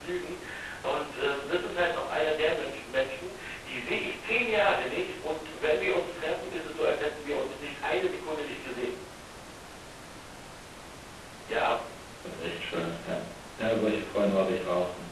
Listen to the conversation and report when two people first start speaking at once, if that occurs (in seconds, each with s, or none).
none